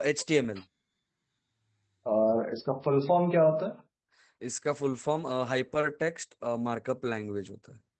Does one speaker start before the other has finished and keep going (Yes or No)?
No